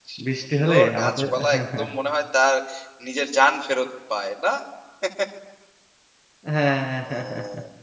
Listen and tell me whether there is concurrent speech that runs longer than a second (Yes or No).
Yes